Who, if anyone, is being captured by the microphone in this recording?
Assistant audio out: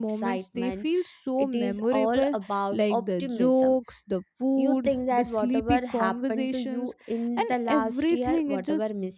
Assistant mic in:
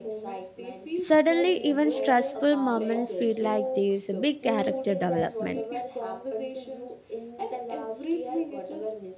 both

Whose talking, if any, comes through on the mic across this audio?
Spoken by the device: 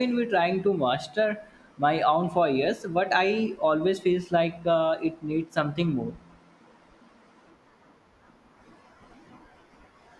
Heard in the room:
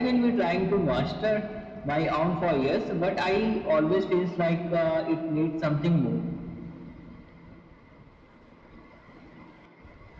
echo only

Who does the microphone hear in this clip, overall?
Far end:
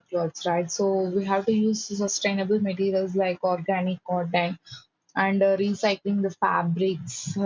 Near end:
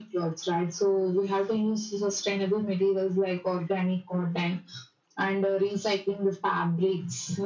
echo only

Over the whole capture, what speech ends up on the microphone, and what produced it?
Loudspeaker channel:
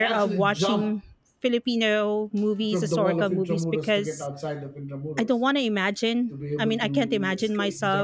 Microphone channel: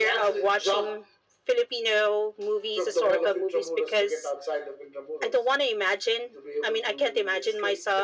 echo only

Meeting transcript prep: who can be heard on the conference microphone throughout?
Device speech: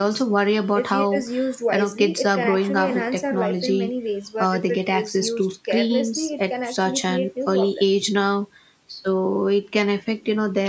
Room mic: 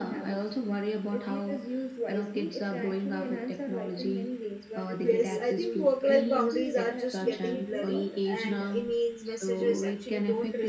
both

